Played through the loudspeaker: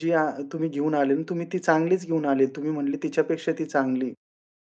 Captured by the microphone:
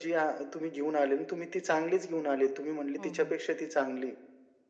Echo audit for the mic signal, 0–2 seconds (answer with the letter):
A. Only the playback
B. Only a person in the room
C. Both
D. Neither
A